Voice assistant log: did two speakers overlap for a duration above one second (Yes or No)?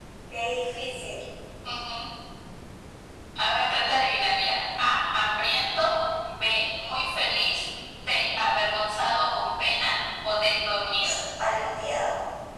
No